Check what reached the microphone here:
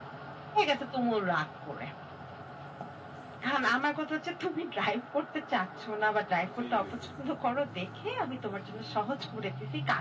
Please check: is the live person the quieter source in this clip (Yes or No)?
Yes